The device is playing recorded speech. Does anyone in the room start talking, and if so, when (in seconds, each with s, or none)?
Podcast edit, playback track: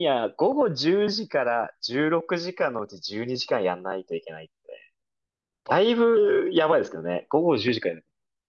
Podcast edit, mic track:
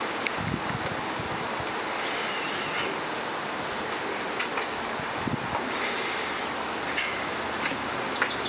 none